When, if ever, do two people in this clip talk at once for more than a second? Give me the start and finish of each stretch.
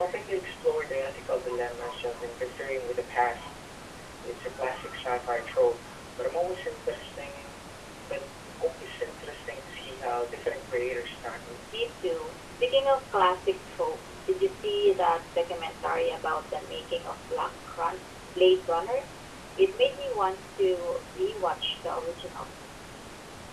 none

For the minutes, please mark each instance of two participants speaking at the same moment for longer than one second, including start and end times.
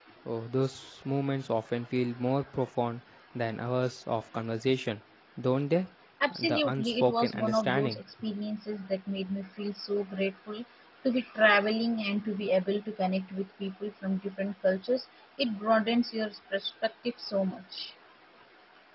6.4-8.0

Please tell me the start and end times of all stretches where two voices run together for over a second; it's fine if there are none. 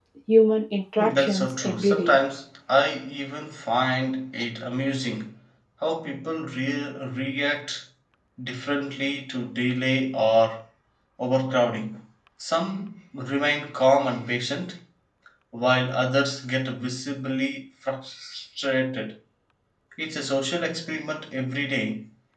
1.0-2.2

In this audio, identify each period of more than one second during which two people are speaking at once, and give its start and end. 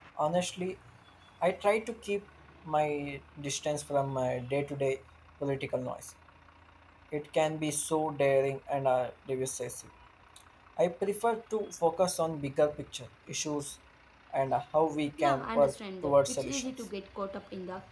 15.2-16.7

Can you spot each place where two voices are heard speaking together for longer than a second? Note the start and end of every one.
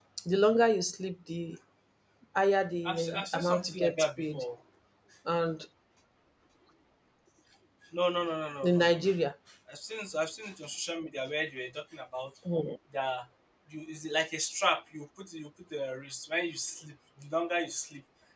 2.9-4.4

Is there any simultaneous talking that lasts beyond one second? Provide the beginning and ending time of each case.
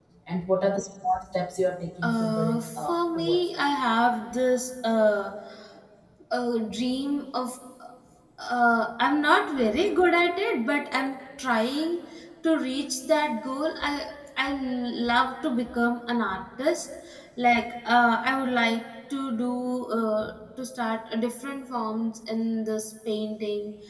2.0-3.8

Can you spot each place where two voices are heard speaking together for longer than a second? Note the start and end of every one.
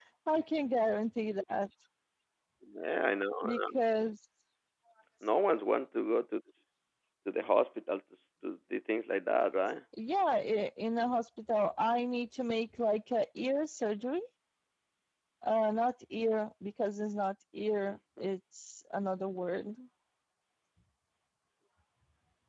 none

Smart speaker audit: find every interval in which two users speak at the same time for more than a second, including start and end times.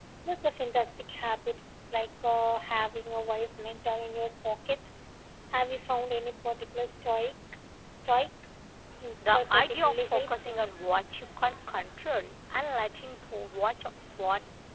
9.2-10.6

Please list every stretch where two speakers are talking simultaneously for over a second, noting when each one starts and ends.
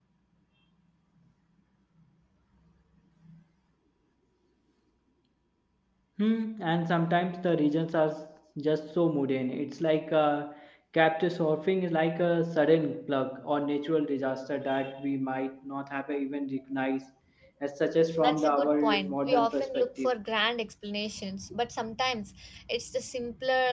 18.2-20.1

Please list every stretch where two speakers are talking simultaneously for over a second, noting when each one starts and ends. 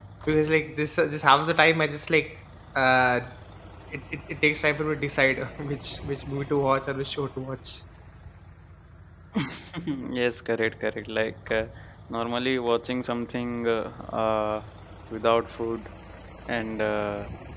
none

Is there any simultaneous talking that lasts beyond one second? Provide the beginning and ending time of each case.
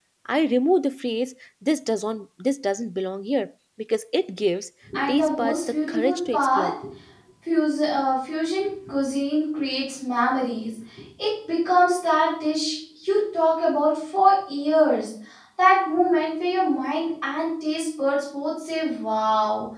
5.1-6.7

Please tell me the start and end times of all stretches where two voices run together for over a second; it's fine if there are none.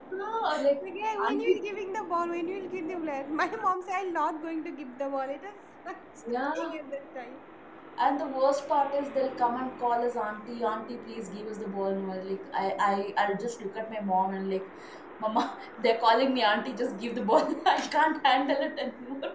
none

